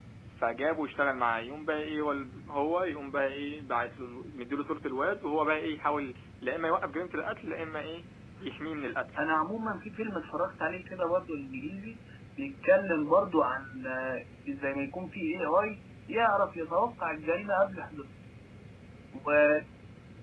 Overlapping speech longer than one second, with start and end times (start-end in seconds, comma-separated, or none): none